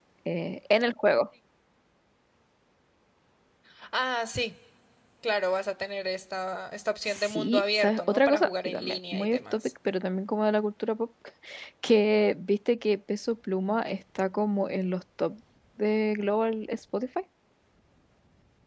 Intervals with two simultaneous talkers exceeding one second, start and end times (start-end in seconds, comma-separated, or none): 7.0-9.7